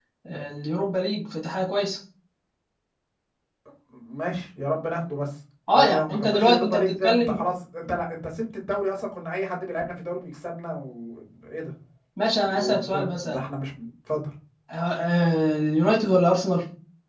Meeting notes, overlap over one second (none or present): present